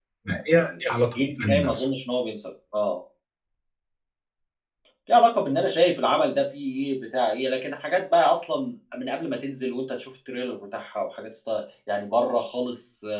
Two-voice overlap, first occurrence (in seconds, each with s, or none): 0.6 s